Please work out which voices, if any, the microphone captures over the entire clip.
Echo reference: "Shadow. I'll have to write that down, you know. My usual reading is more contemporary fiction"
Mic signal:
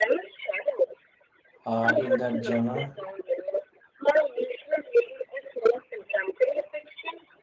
both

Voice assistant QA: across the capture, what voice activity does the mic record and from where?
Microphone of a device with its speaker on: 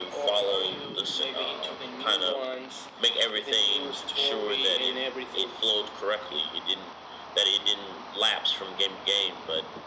echo only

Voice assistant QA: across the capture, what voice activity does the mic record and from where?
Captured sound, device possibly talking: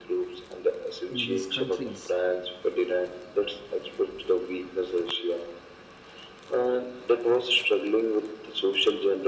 both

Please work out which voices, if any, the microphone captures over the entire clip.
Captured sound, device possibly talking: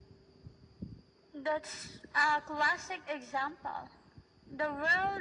echo only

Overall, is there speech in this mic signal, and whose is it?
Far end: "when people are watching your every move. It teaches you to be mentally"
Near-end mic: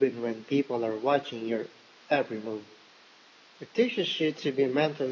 echo only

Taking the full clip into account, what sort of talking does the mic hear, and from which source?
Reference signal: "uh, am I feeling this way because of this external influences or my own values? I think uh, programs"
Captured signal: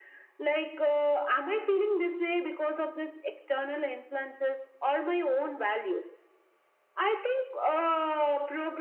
echo only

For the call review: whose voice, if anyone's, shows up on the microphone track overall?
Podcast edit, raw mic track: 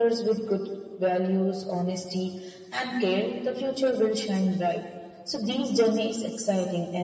echo only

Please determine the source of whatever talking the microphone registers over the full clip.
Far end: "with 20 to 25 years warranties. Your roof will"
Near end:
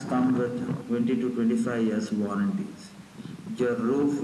echo only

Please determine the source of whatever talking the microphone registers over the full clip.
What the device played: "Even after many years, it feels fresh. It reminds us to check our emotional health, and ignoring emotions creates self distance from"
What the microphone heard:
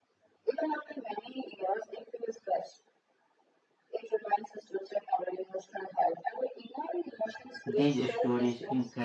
both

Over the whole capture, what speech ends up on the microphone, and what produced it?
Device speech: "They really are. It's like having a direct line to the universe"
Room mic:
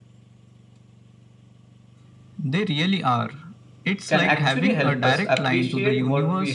both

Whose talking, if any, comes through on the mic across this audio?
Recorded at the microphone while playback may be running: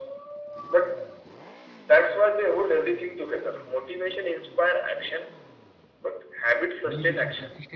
both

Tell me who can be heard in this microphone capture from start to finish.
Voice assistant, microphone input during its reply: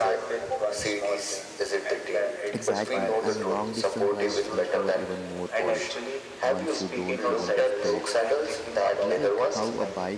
both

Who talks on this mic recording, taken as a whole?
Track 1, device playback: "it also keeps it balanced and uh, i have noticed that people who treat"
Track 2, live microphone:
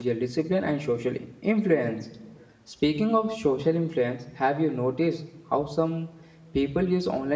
user only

